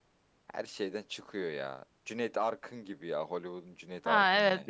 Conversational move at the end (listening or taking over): taking over